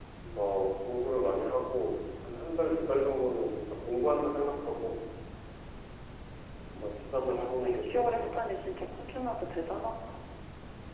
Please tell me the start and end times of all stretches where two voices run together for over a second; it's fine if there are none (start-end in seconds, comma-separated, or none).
7.2-8.6